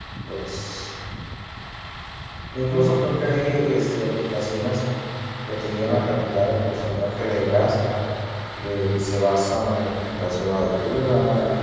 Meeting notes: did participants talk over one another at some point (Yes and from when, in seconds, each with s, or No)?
No